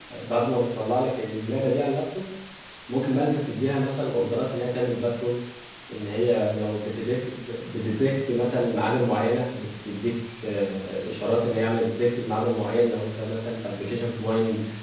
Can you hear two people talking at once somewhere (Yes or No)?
No